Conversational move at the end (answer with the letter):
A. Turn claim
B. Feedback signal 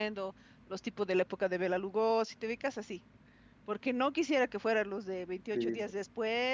B